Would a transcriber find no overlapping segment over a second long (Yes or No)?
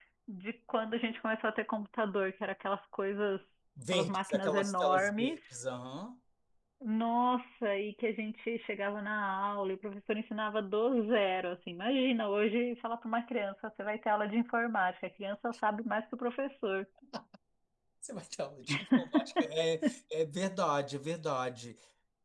No